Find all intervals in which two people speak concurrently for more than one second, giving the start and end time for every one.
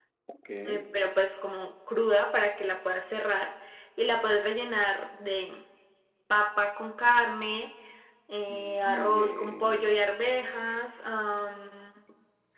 8.5-9.9

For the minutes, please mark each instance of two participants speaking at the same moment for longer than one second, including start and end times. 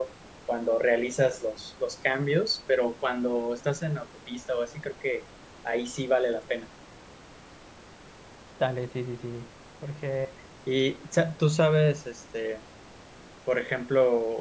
none

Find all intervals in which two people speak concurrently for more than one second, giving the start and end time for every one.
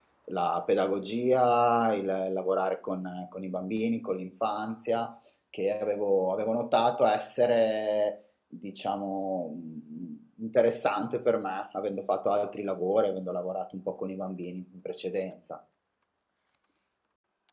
none

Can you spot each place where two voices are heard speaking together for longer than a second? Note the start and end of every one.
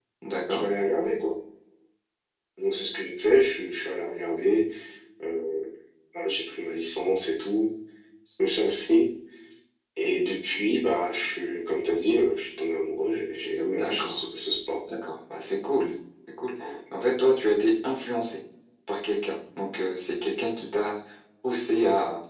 none

